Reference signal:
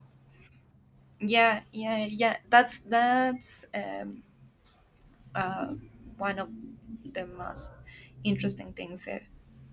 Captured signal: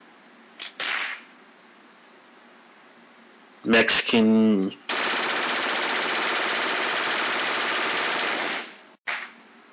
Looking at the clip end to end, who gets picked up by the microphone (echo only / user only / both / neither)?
user only